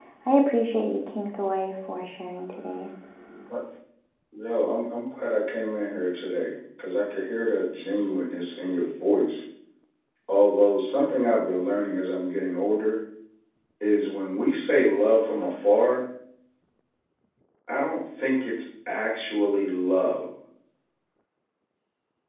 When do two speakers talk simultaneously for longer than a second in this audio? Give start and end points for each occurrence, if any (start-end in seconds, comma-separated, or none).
none